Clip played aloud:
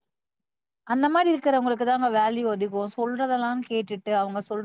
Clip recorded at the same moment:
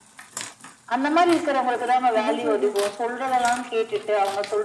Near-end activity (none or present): present